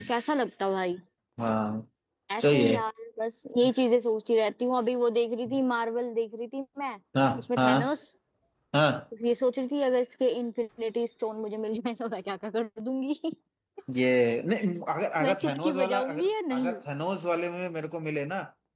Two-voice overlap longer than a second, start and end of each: 15.2-16.8

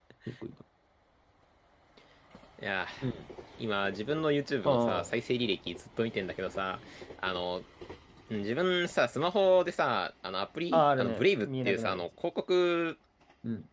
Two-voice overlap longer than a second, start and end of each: 10.7-12.0

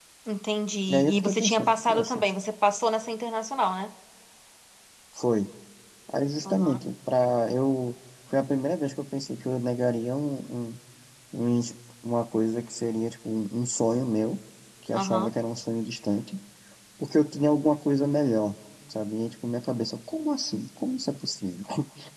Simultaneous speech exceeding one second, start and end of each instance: 0.9-2.2

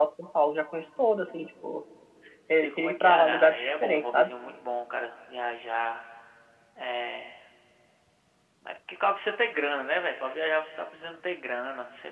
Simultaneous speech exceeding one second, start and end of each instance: 2.6-4.3

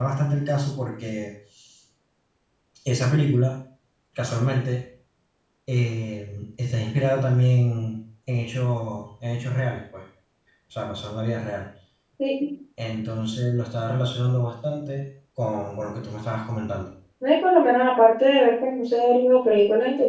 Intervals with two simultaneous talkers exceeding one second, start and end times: none

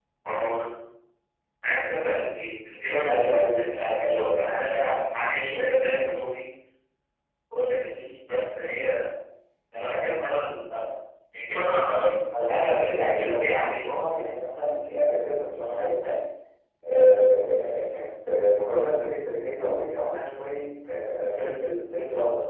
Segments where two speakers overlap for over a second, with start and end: 3.1-4.5, 12.5-13.9

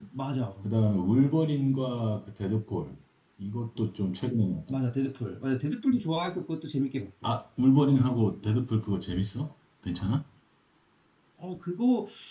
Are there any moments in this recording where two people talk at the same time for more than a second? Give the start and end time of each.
none

